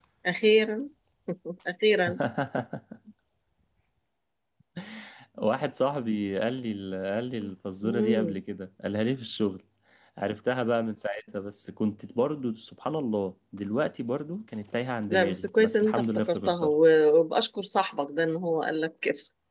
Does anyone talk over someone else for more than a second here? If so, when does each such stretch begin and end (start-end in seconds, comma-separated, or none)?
15.1-16.7